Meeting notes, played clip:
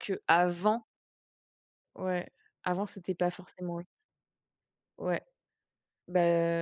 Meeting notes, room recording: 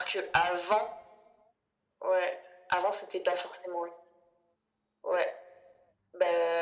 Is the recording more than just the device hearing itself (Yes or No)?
No